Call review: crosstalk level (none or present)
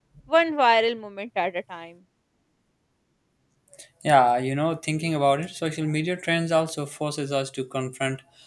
none